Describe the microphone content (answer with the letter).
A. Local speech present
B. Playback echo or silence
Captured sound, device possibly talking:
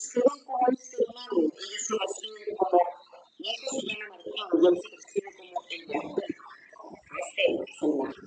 B